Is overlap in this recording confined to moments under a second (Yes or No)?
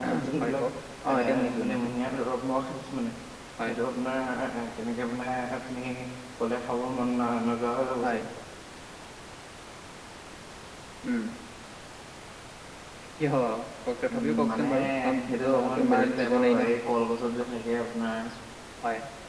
No